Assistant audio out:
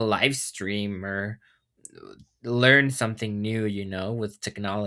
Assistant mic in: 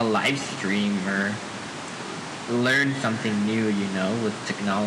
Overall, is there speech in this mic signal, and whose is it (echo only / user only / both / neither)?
echo only